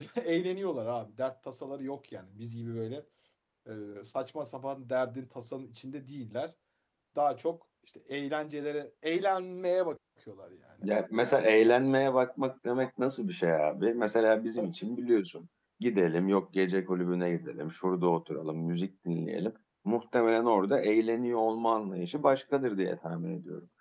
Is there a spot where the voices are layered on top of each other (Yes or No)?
No